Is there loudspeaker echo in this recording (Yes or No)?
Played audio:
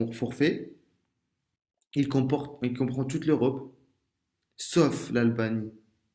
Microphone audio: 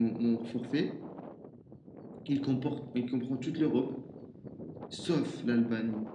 Yes